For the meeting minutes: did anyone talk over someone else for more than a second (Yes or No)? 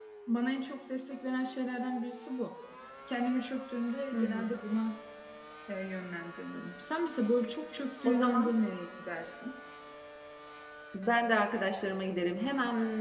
No